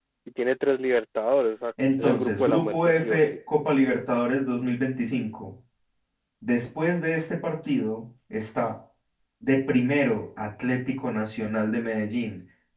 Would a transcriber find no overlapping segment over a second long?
No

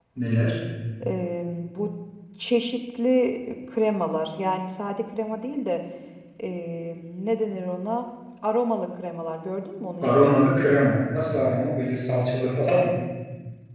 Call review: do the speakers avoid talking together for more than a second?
Yes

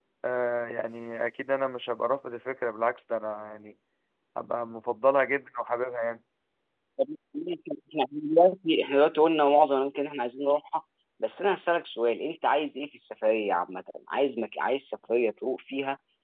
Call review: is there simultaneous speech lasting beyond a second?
No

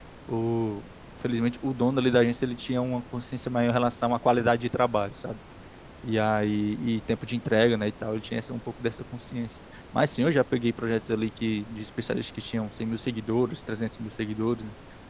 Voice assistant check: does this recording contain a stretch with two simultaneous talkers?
No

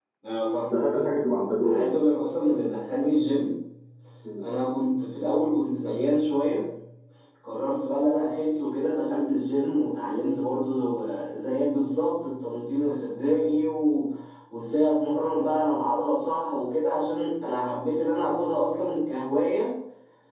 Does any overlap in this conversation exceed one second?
No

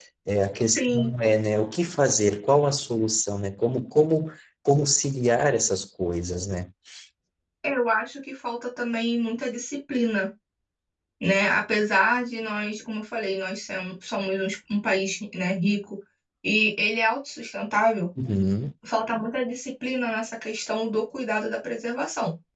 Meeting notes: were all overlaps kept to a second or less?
Yes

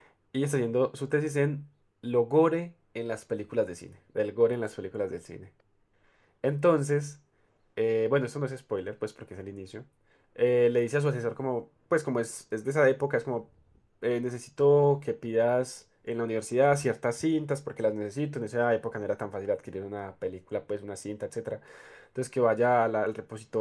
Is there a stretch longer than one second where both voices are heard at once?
No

